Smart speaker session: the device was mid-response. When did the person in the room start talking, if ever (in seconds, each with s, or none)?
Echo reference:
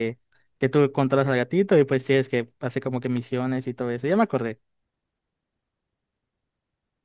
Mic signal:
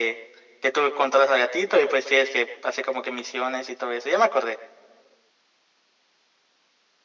none